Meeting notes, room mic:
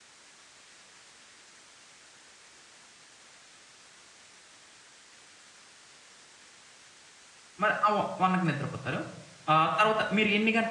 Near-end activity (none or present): present